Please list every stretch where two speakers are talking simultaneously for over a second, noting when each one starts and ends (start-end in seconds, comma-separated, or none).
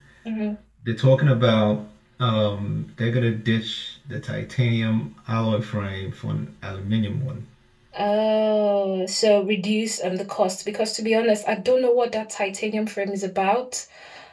none